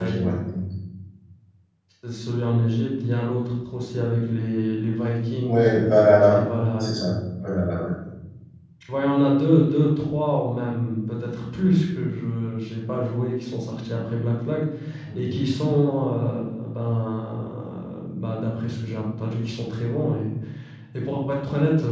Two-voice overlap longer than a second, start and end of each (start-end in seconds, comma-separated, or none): none